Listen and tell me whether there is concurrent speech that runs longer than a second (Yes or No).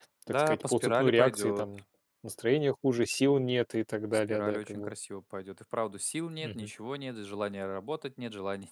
Yes